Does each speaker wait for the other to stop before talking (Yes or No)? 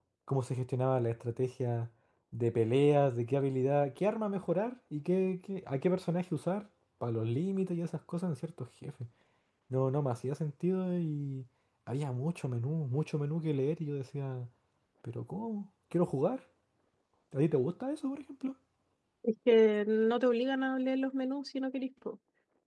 Yes